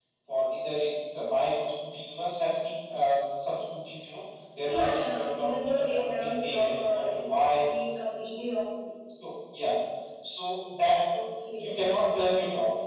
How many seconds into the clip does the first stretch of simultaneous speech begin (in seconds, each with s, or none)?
4.6 s